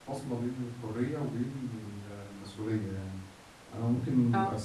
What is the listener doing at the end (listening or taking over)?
listening